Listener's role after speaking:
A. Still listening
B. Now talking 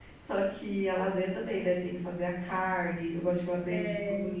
A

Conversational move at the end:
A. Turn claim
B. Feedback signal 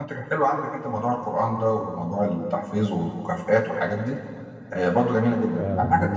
A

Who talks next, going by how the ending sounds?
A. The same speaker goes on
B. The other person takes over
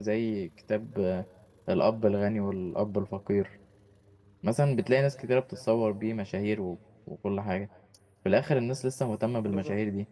A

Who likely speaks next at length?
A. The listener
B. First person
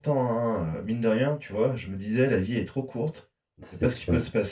B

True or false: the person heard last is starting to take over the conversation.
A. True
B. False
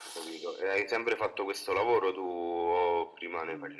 A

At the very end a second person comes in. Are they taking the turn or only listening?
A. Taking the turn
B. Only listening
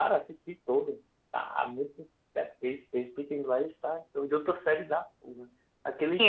A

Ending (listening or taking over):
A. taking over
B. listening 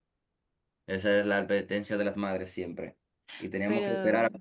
B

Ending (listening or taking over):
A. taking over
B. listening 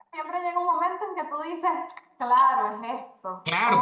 A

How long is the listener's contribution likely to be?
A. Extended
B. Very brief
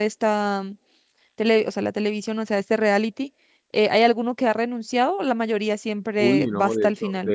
A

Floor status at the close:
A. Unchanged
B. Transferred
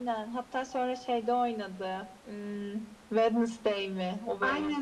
B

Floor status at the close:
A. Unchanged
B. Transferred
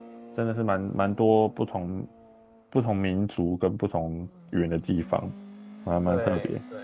B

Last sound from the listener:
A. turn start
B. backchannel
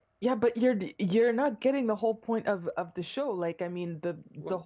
B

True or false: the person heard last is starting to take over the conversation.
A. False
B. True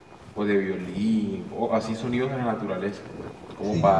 A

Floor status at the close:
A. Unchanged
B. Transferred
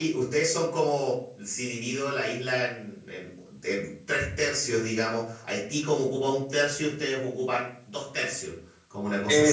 B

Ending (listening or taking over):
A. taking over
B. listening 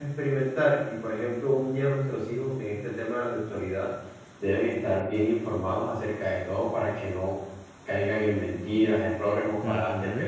B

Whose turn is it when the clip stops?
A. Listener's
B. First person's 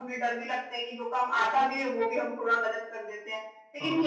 B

